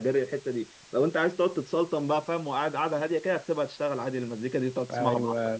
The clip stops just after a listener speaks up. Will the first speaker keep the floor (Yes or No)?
No